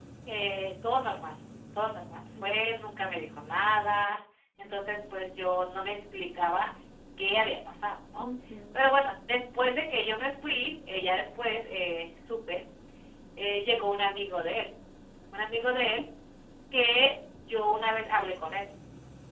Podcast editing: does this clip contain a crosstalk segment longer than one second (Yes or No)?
No